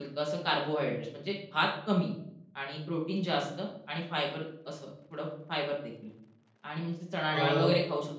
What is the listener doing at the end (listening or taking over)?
listening